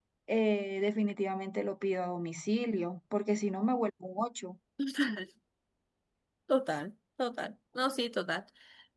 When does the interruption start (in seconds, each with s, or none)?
none